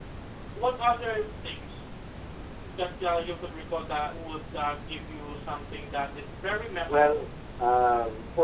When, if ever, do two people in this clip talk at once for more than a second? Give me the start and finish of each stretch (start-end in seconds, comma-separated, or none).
none